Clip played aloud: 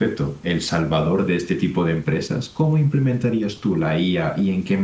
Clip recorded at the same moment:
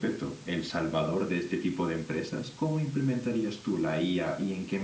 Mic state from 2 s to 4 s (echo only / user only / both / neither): echo only